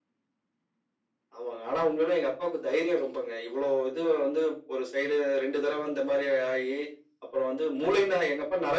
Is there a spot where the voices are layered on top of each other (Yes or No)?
No